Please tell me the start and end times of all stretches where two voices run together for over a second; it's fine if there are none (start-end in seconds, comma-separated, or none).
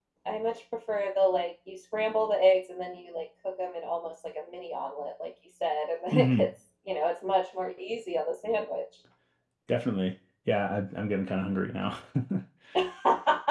none